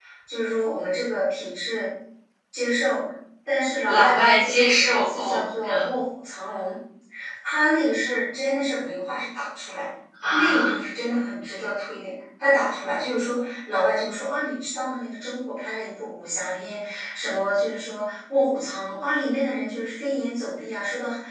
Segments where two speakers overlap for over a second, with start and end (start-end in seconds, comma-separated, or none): 3.8-5.8